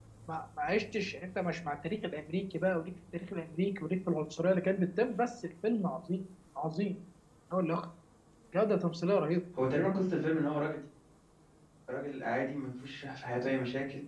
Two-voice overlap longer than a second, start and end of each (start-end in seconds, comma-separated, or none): none